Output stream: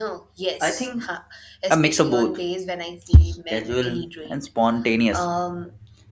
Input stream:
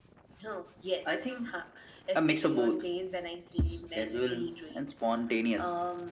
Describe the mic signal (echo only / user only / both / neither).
echo only